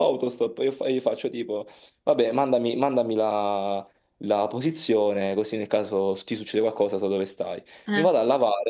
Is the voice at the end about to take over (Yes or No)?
No